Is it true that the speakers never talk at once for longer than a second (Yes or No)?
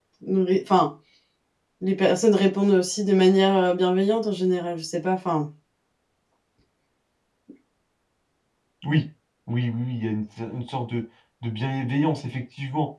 Yes